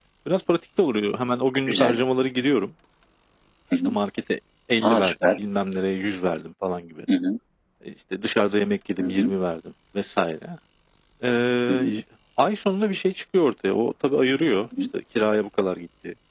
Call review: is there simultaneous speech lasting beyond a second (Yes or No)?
No